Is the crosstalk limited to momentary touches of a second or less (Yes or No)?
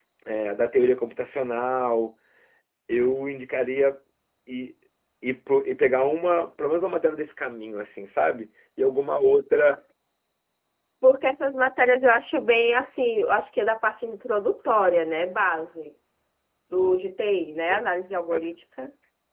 Yes